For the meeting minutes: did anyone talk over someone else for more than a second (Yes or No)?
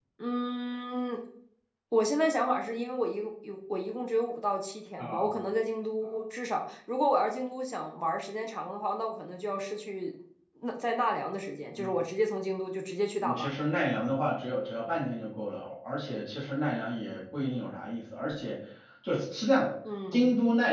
No